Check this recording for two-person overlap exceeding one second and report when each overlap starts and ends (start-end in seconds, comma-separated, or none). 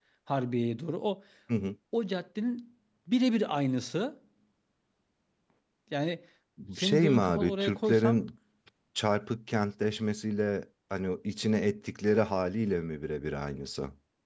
6.8-8.2